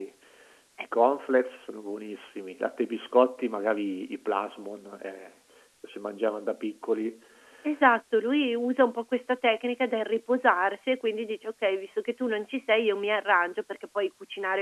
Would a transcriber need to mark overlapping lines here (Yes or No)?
No